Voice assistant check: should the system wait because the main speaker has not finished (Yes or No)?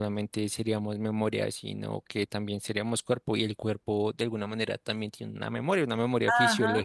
No